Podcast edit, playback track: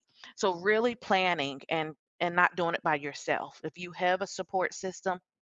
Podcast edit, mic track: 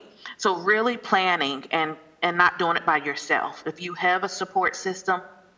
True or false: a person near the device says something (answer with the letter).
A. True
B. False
B